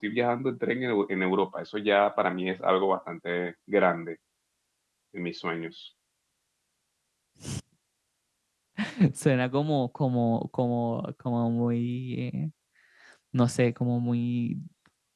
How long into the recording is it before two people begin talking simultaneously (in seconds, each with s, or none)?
none